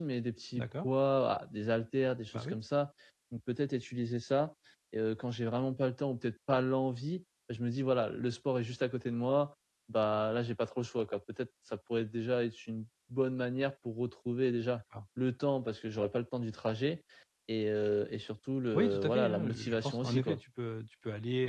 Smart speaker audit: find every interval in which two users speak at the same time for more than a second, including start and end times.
18.7-20.4

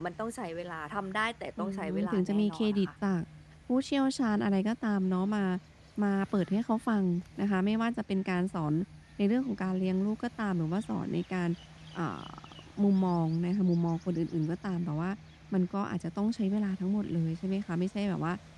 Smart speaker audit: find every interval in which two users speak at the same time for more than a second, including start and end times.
1.6-2.9

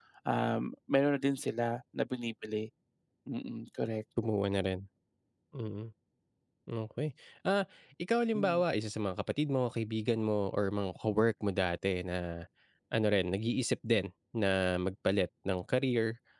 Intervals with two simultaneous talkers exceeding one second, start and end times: none

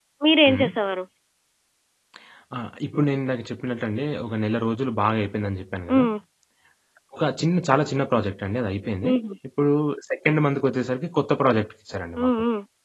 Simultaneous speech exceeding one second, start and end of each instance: none

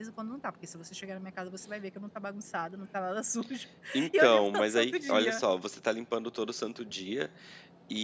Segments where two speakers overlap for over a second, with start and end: 4.2-5.4

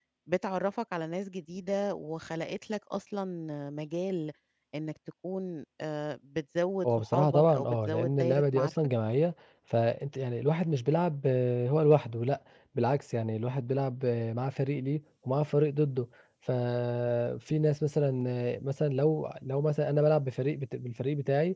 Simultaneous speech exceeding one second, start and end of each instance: 7.0-8.7

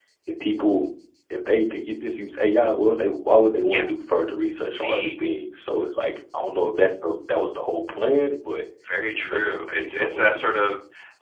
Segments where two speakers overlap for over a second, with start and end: 9.1-10.6

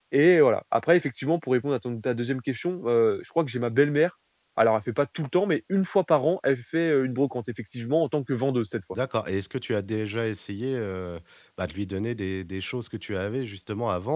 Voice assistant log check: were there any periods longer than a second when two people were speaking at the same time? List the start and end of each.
none

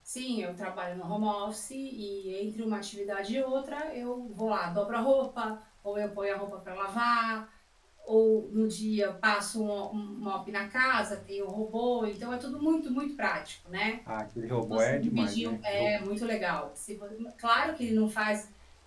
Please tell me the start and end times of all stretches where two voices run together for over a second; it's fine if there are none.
14.6-15.9

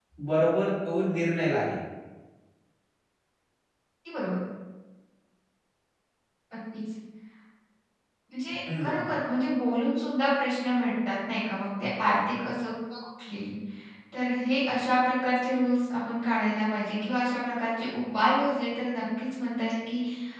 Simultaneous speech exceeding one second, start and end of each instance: none

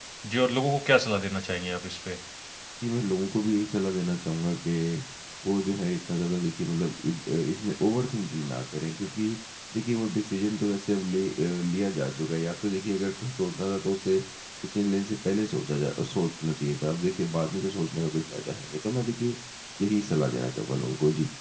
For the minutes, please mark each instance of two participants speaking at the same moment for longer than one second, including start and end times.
none

